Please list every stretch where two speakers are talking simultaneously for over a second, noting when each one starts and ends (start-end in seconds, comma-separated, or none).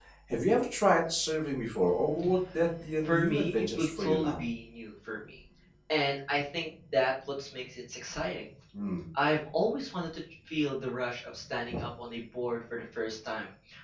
3.0-4.4